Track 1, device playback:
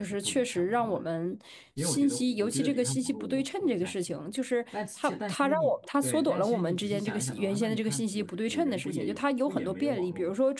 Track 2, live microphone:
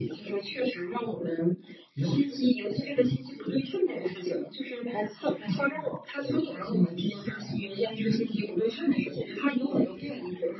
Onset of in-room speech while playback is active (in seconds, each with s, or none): none